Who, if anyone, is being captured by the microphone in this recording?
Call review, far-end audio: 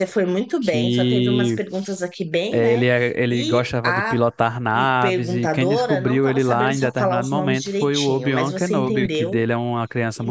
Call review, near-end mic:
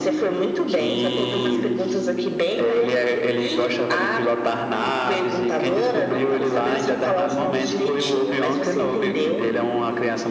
echo only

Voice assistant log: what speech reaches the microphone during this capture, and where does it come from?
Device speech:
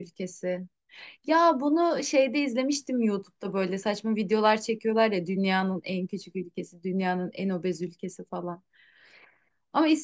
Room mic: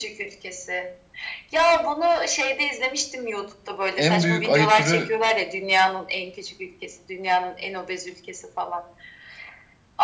both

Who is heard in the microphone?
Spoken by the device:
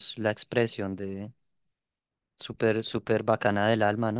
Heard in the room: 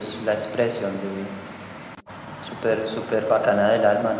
echo only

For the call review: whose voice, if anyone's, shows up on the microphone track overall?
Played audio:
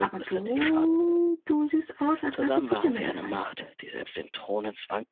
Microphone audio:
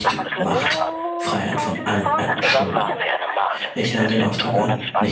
both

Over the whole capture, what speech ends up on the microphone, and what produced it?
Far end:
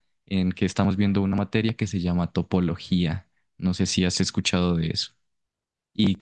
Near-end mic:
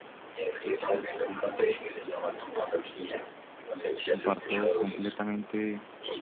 both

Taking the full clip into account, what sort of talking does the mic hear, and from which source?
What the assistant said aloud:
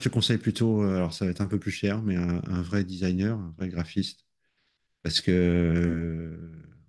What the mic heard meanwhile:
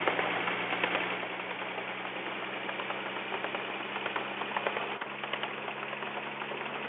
neither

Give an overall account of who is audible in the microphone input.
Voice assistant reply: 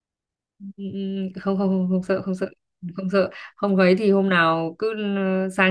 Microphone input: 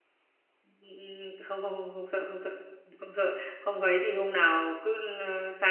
echo only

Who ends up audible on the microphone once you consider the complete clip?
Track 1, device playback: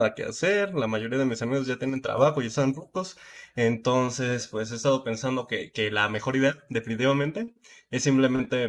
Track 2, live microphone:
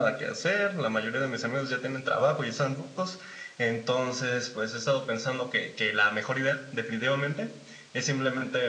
echo only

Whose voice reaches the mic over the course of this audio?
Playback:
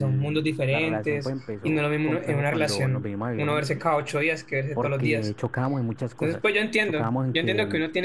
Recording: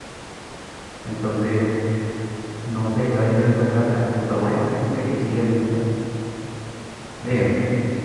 user only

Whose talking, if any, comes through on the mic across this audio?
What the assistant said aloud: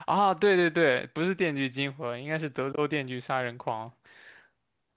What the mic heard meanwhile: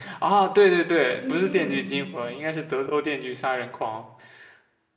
both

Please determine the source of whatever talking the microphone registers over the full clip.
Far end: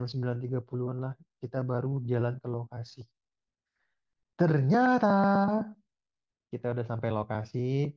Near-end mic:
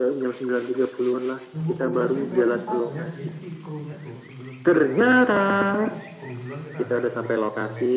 both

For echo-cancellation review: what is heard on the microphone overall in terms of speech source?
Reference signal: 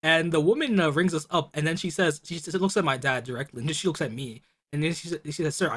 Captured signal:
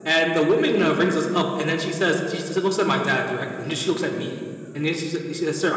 echo only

